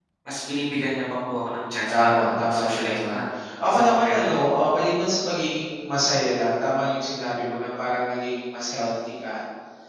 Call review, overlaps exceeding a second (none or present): present